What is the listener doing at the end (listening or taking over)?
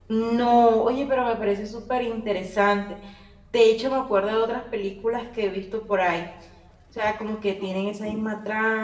listening